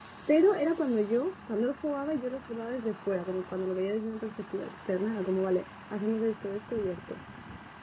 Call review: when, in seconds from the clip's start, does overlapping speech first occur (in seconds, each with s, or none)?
none